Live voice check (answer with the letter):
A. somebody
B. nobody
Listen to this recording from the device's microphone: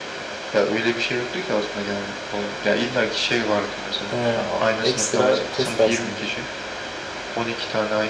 A